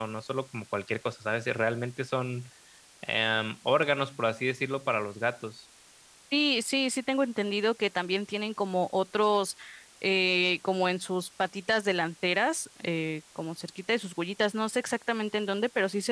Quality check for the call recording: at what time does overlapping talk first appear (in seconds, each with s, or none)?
none